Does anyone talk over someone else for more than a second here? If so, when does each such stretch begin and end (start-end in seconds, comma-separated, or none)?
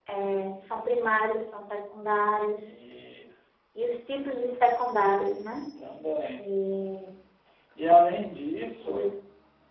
none